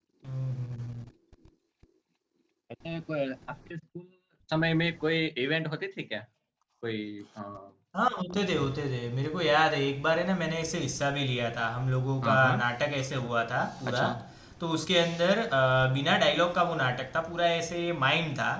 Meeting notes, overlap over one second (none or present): none